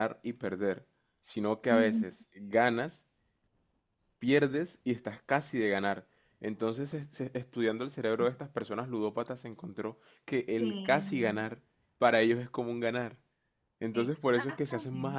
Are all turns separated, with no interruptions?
No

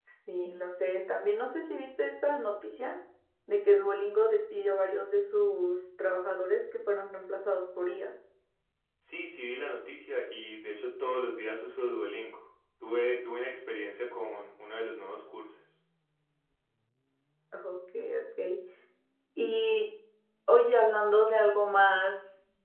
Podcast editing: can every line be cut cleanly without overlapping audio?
Yes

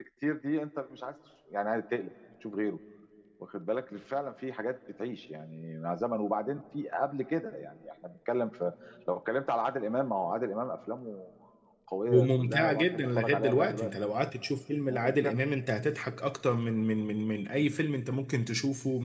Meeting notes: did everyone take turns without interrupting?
No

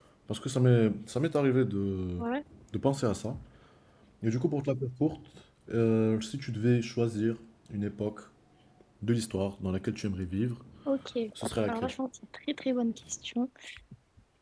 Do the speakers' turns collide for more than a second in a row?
No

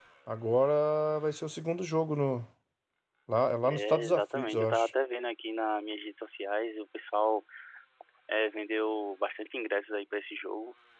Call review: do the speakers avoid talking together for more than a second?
No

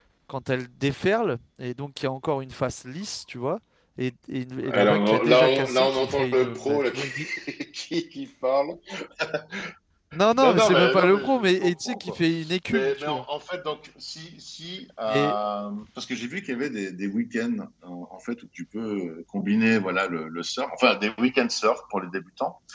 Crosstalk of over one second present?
Yes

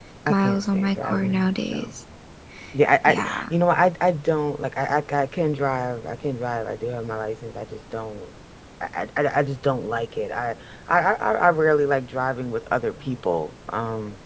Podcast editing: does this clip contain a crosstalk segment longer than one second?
Yes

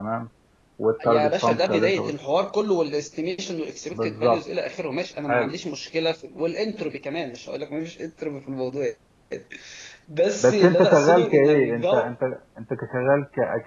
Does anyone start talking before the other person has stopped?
Yes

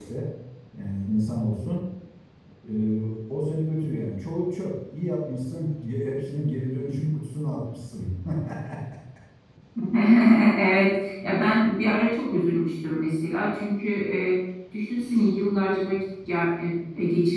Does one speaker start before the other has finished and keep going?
No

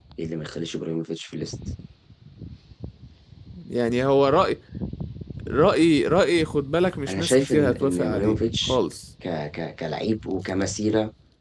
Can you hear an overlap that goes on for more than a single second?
Yes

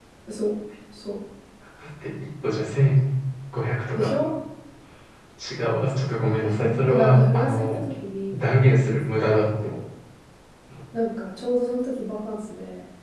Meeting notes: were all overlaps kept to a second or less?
No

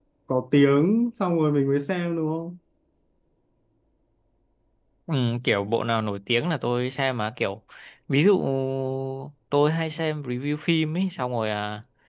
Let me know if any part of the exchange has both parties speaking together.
No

